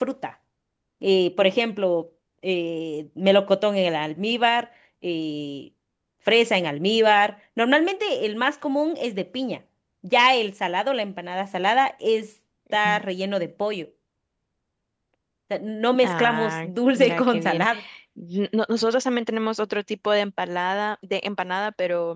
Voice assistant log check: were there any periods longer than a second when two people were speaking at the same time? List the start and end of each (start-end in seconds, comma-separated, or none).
16.0-17.7